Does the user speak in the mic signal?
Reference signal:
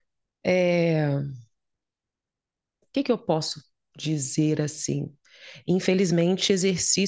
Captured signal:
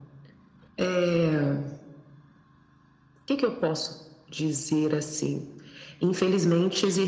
No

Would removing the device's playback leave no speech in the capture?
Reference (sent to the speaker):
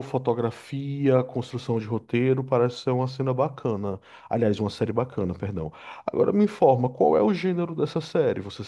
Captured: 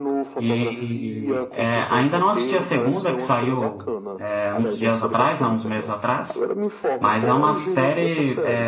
No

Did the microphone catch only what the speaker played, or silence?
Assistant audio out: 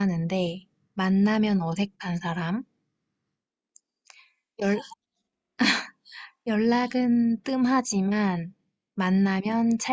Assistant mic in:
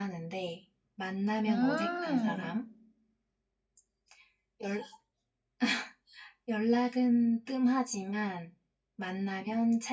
No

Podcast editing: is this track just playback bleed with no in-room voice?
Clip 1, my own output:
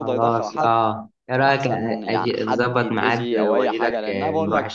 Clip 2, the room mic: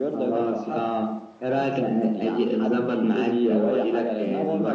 Yes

